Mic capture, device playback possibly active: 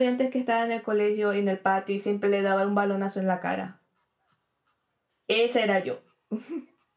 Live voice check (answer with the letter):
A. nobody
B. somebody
A